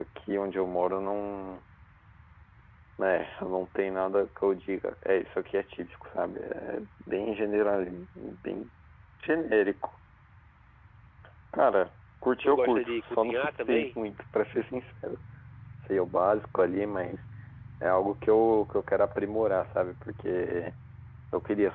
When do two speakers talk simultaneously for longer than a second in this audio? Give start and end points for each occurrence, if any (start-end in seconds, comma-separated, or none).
12.4-13.9